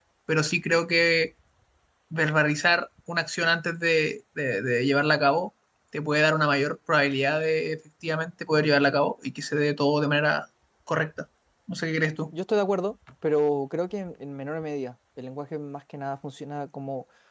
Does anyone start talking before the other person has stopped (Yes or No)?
No